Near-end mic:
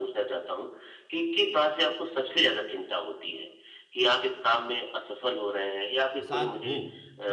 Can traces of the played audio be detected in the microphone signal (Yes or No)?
Yes